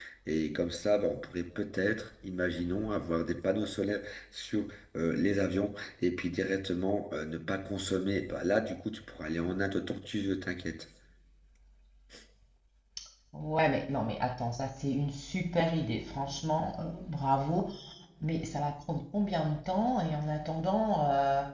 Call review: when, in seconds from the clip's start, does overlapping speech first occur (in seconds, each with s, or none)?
none